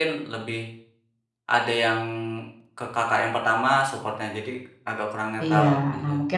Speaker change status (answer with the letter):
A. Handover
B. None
A